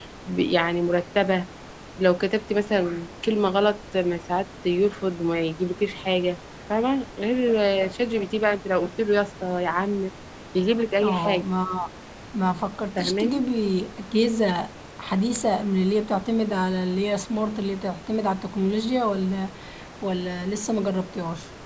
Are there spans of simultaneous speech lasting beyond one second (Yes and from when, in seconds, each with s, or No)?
No